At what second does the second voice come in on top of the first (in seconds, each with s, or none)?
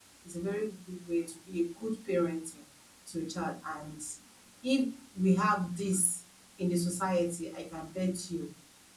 none